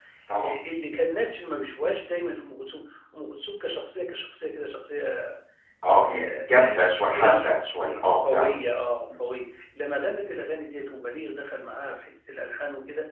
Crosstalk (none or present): present